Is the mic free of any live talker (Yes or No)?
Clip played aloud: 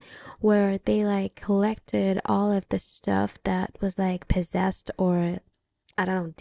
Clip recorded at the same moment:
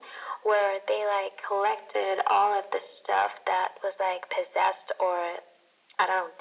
Yes